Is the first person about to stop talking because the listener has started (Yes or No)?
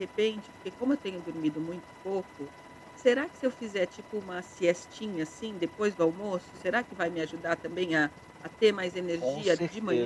Yes